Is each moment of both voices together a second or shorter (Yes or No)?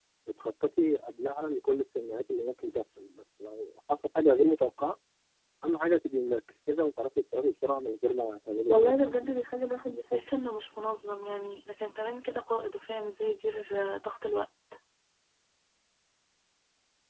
Yes